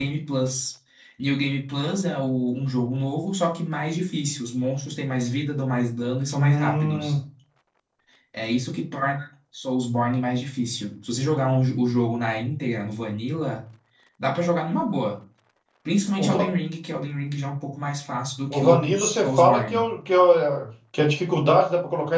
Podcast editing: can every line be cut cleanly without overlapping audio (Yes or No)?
No